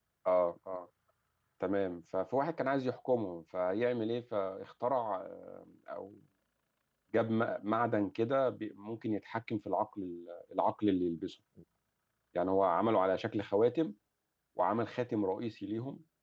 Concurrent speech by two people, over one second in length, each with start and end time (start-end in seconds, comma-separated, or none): none